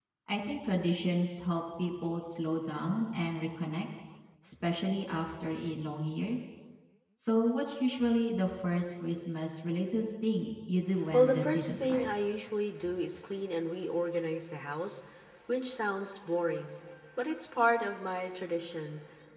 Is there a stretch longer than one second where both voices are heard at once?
Yes, from 11.1 s

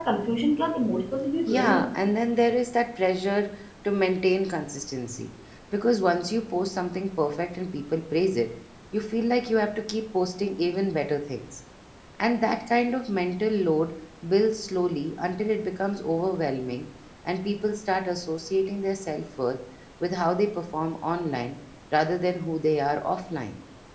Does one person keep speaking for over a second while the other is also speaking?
No

